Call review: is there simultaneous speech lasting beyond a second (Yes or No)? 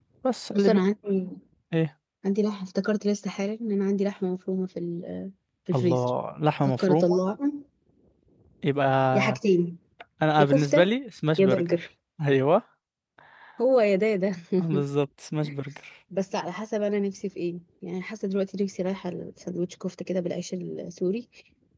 No